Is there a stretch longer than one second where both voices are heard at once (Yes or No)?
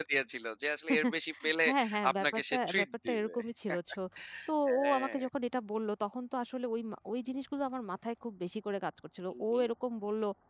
Yes